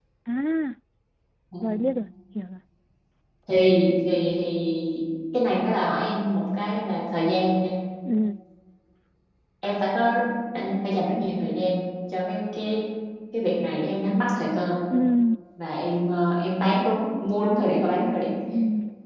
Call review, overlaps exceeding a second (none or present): none